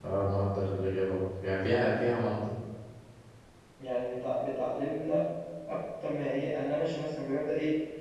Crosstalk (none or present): none